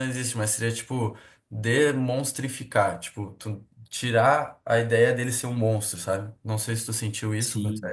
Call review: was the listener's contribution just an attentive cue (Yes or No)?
No